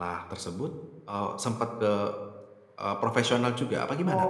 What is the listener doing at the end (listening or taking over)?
taking over